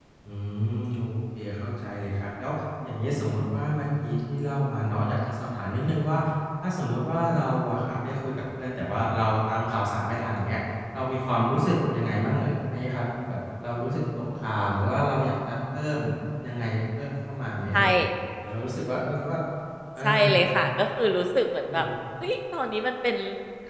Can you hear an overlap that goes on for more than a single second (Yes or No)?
No